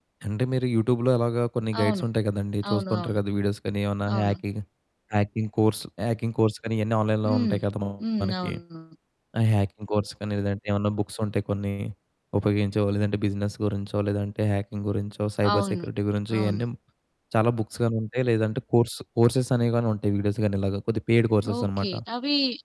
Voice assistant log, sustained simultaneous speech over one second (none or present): none